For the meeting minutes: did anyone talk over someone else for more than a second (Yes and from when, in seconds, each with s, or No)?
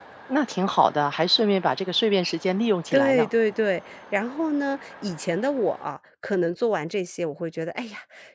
No